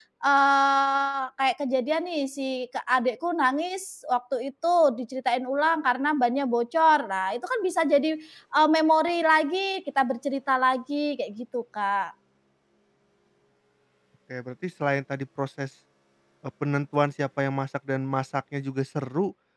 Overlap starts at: none

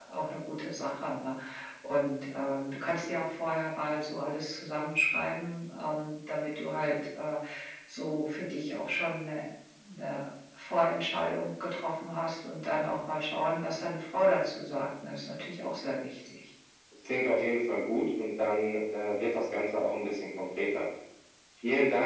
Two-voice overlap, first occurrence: none

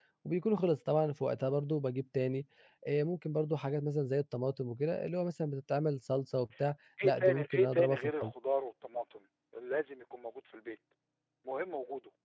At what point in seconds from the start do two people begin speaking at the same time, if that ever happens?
7.0 s

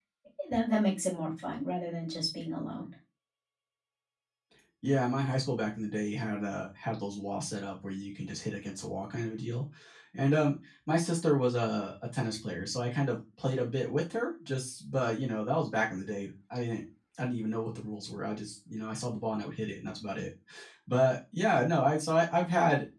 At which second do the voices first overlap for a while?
none

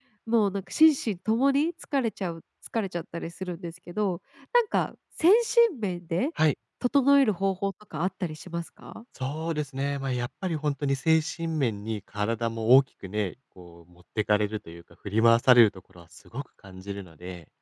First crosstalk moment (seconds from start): none

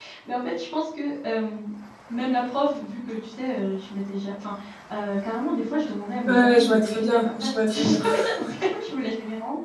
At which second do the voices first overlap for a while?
6.2 s

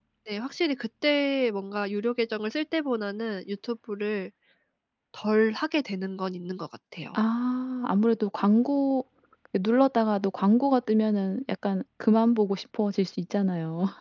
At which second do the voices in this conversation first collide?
none

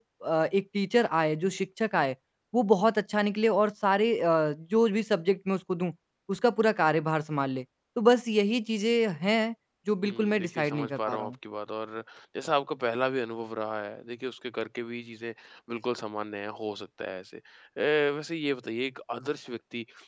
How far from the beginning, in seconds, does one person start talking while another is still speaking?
10.0 s

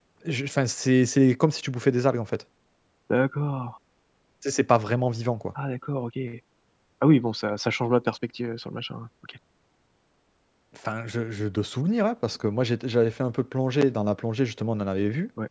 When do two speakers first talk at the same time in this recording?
none

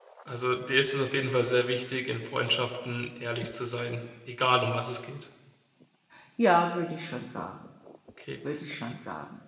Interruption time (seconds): none

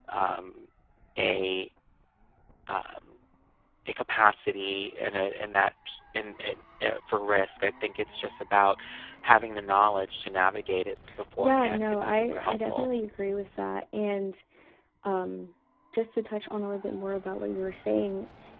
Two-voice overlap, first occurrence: 11.4 s

